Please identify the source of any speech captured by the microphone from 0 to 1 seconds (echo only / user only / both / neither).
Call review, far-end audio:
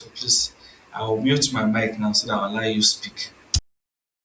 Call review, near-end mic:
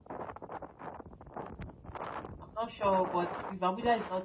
neither